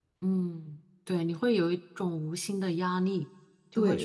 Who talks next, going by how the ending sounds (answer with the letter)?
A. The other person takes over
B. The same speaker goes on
A